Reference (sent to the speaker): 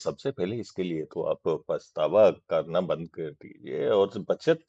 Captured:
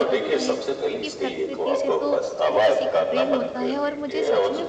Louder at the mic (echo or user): echo